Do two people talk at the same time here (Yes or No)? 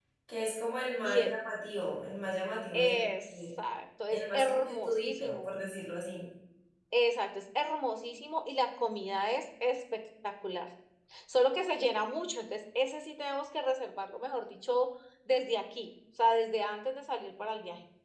Yes